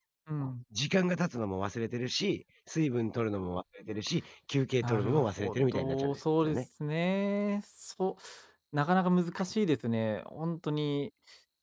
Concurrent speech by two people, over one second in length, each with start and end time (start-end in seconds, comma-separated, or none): 4.8-6.6